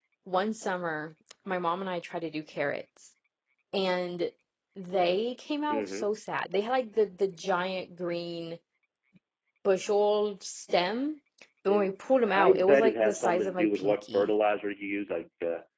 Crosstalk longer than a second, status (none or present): present